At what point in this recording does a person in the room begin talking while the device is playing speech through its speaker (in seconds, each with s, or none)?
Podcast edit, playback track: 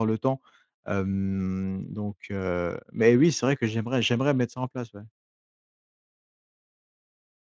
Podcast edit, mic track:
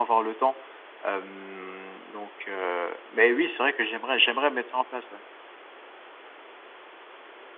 none